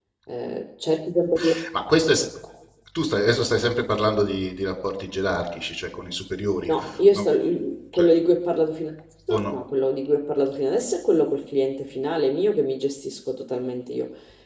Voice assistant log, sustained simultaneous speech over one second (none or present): none